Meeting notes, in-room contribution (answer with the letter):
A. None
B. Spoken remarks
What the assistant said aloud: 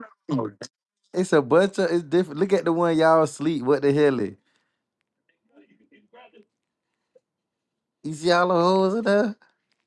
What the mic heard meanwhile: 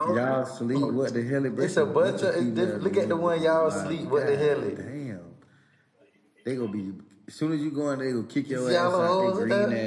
B